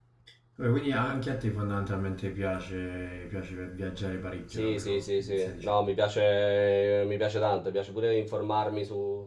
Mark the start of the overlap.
4.5 s

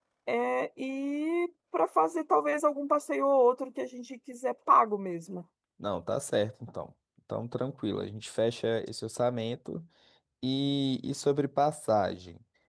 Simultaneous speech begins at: none

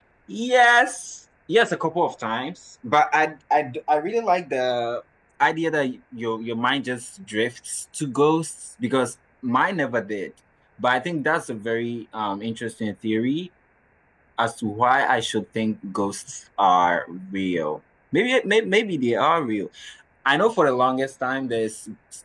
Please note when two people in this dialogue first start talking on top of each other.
none

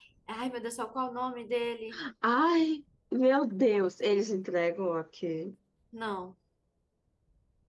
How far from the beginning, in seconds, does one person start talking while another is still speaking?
none

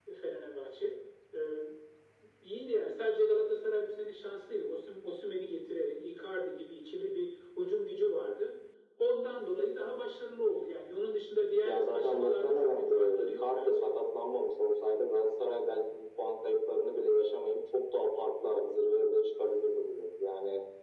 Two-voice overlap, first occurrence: 11.6 s

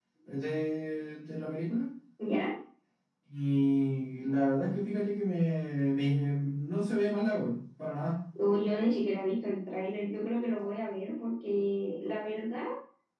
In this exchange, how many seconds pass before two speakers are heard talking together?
none

